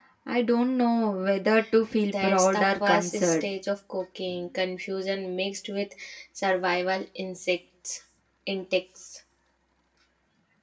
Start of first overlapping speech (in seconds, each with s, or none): 2.1 s